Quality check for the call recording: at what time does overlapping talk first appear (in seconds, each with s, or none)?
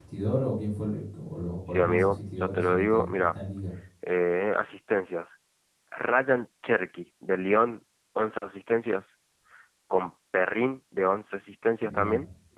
1.7 s